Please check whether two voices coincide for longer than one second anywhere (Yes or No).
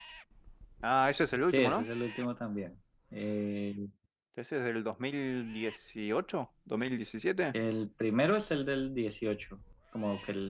No